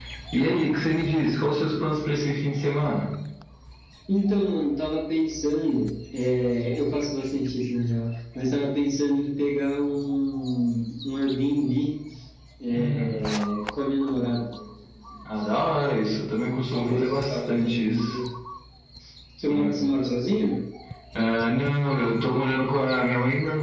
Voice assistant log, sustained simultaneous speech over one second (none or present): present